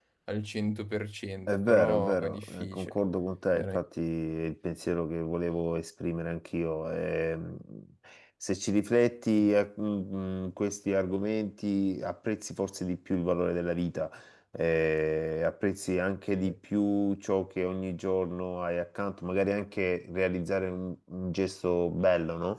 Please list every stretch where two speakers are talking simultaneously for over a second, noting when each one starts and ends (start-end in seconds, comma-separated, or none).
1.5-2.9